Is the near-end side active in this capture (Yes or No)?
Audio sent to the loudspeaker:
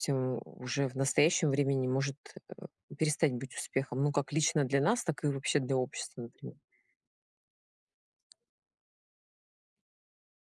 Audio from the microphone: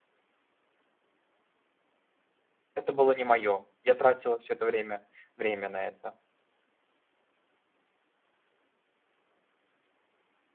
Yes